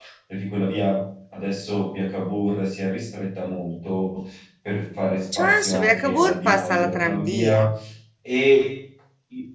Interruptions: present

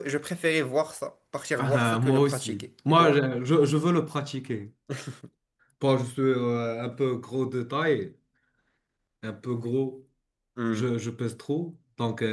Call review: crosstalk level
present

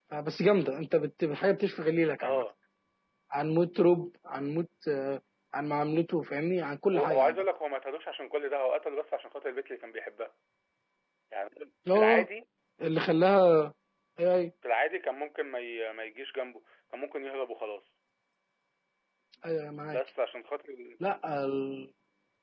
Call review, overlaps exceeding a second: none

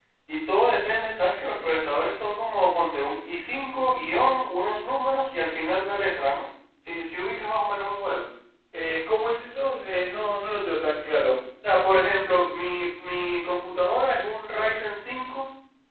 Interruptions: none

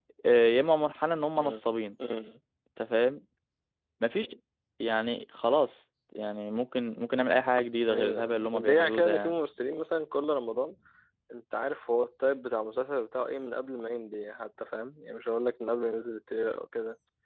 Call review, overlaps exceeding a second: present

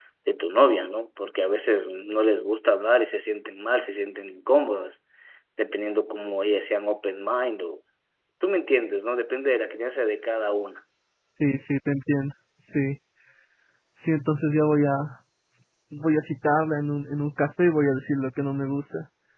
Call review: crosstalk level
none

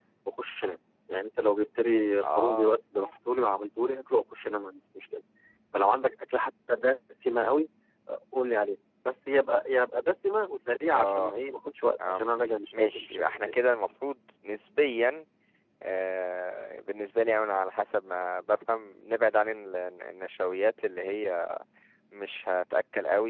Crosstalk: present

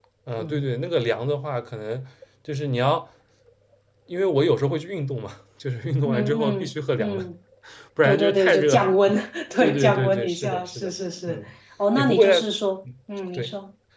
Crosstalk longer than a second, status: present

